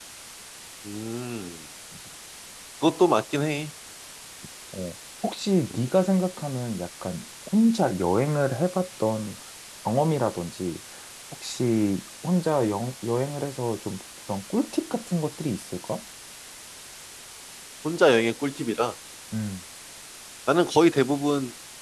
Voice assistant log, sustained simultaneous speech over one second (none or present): none